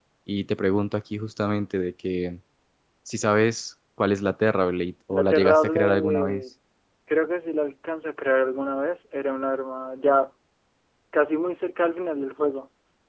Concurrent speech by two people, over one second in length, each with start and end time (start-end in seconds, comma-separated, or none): 5.1-6.4